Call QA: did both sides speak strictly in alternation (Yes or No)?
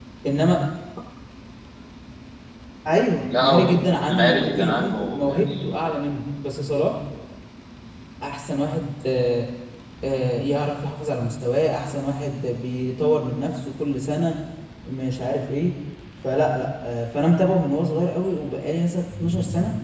No